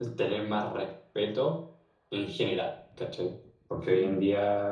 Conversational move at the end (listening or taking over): listening